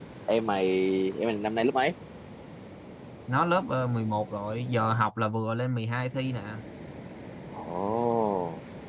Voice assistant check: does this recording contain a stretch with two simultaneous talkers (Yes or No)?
No